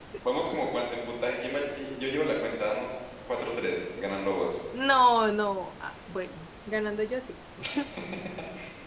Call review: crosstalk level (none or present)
none